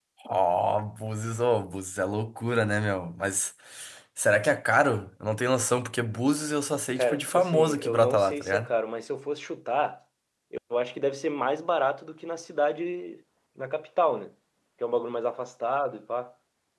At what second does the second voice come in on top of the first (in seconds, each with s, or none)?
7.0 s